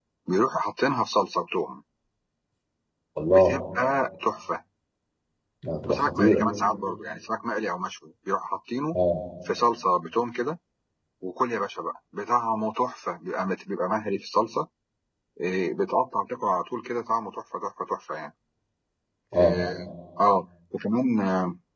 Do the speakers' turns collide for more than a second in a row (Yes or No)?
No